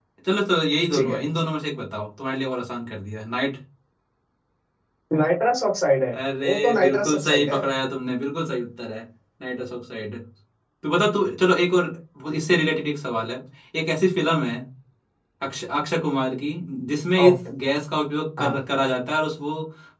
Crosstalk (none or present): present